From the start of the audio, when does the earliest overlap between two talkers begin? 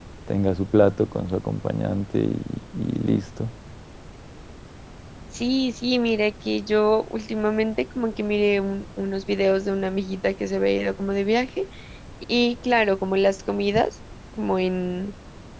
none

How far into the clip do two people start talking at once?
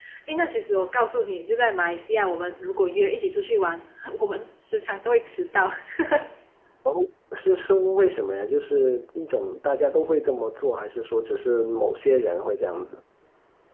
none

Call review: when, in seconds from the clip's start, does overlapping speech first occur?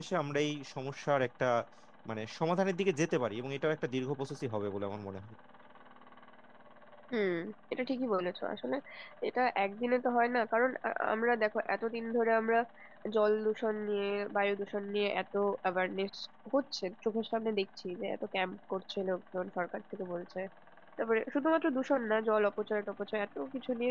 none

